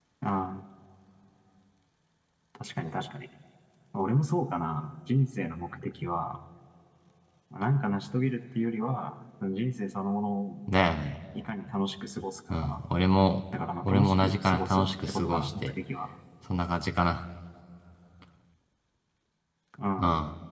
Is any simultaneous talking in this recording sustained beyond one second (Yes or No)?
Yes